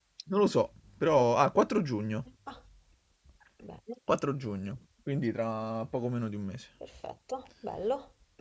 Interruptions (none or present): none